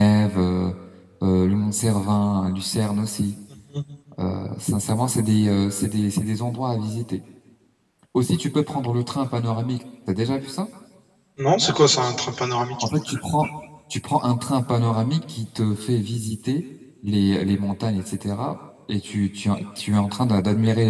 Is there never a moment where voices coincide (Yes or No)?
Yes